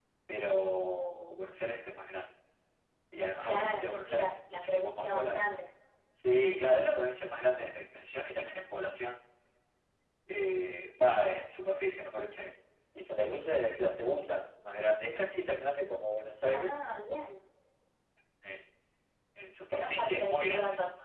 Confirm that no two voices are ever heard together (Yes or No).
No